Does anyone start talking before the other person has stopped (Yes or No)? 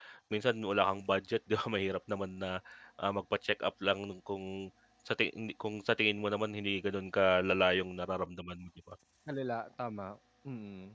No